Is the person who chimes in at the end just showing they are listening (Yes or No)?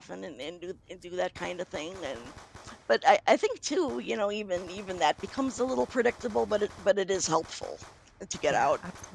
No